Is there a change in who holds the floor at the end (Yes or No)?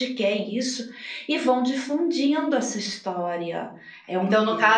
Yes